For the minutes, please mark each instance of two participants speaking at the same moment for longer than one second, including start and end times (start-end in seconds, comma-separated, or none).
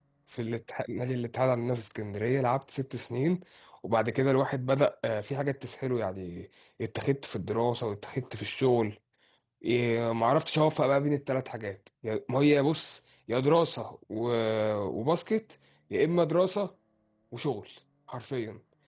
none